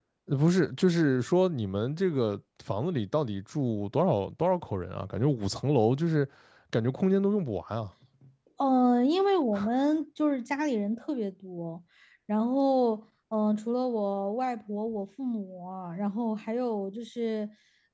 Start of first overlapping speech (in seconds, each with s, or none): none